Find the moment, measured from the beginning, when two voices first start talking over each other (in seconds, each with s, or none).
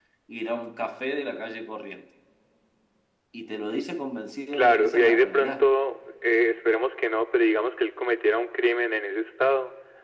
4.5 s